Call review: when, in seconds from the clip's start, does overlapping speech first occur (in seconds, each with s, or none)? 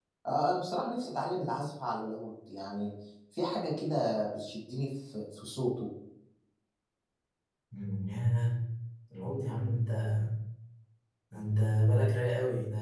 none